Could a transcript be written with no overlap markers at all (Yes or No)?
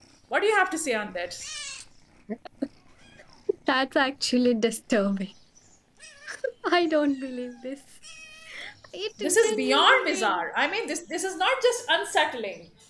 No